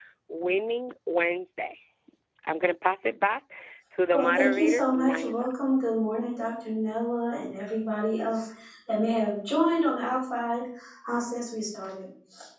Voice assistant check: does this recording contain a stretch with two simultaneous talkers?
Yes, from 4.1 s

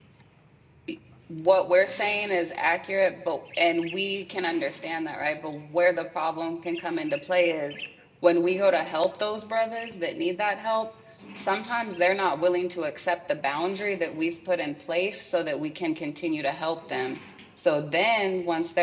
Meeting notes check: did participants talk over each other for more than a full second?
No

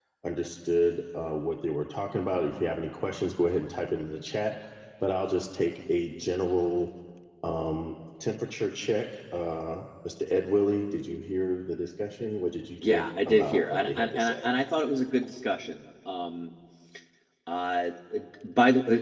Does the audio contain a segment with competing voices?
Yes, from 12.8 s

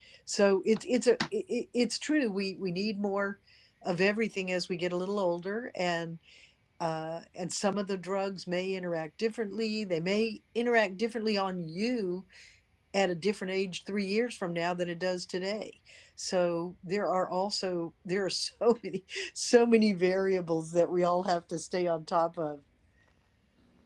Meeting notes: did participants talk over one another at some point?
No

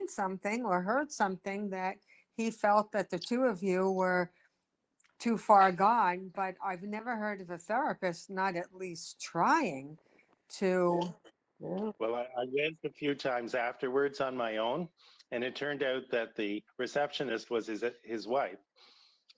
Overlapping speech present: No

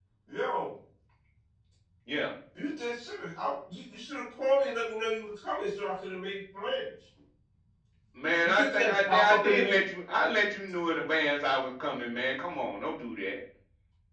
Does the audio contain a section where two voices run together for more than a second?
Yes, from 8.4 s

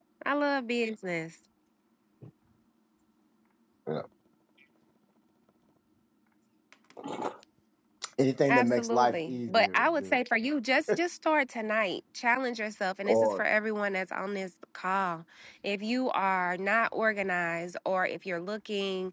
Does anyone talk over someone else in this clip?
Yes, from 8.5 s

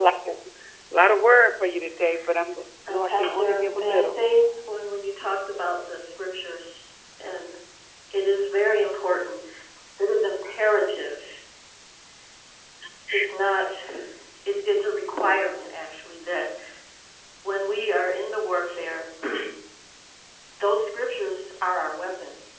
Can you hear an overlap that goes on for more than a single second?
Yes, from 2.9 s

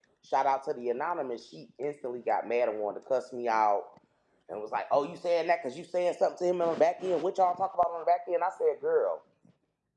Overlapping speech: No

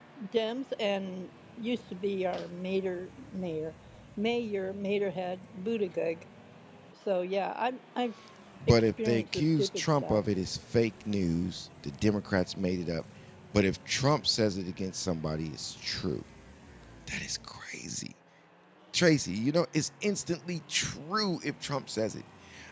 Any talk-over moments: Yes, from 8.7 s

